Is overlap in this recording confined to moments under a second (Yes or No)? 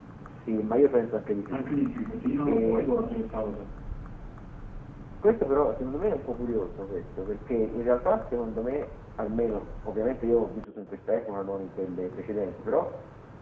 Yes